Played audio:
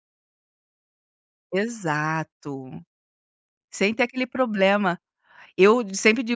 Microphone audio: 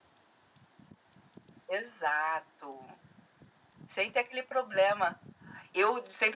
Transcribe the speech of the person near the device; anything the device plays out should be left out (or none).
none